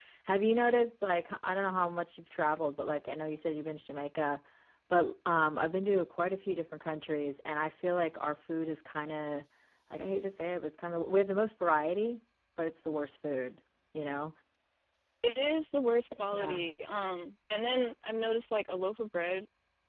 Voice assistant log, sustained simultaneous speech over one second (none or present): none